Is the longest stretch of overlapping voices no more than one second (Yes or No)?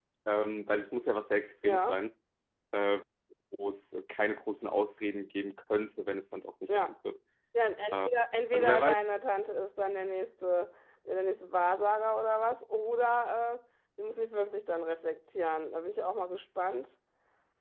Yes